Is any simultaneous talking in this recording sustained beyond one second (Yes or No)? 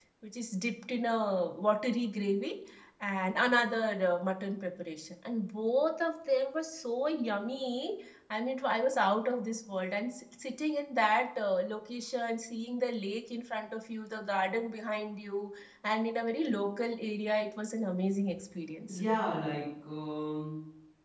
No